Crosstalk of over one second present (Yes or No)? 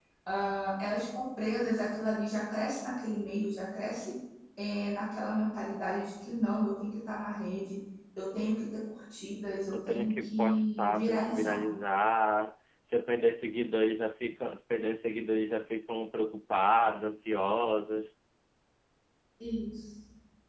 Yes